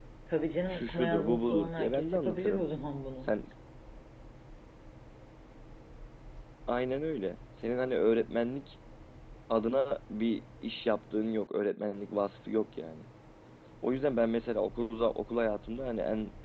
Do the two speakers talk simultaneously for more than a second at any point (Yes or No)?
Yes